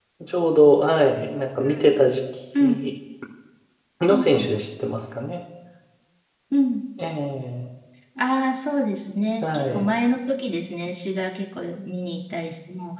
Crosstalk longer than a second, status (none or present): none